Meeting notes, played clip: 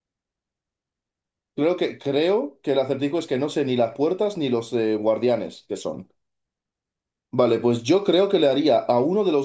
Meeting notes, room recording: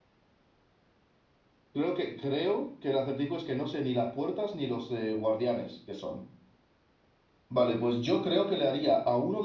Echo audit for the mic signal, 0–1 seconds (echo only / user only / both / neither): neither